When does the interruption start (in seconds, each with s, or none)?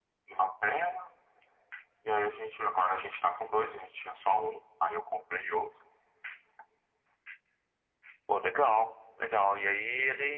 none